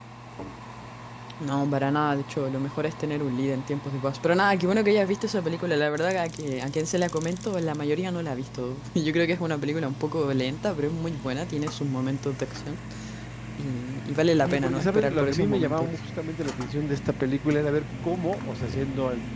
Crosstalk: present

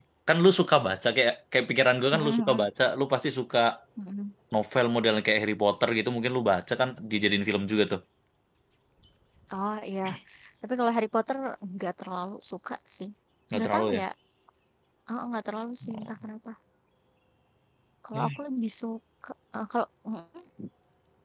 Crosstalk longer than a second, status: none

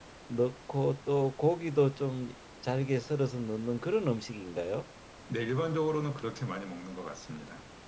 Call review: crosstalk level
none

